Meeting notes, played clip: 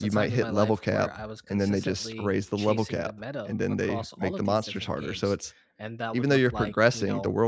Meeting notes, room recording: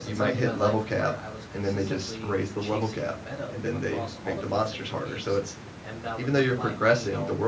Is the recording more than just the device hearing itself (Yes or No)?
No